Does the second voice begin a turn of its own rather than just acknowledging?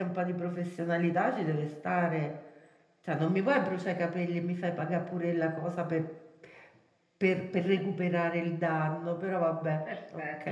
Yes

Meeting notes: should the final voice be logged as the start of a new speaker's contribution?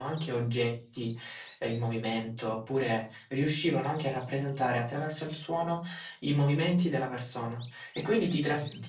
No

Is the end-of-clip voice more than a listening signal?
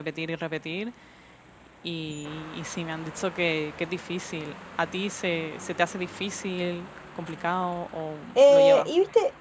Yes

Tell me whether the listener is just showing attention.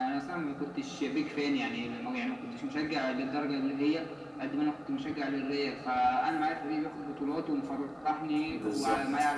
Yes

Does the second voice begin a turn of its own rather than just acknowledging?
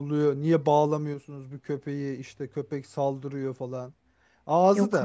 No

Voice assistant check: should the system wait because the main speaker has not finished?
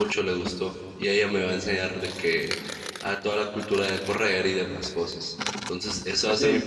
Yes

